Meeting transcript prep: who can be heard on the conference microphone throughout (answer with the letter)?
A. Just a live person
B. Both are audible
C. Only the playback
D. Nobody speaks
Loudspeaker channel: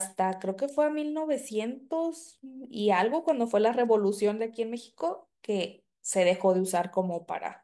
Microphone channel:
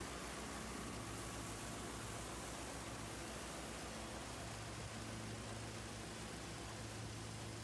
D